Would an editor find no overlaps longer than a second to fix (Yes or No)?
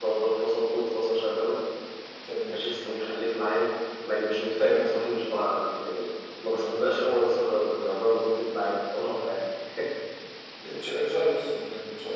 Yes